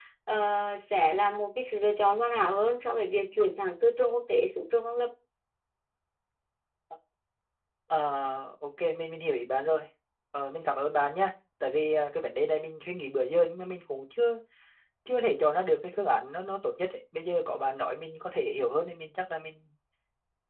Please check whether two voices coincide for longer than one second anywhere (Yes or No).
No